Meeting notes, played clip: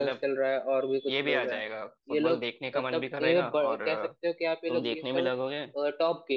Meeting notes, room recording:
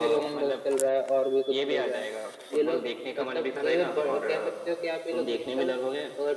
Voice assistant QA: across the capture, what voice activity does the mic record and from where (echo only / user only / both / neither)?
echo only